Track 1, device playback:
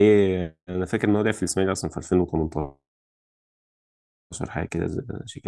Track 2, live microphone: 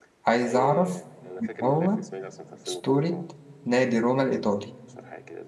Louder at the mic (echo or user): user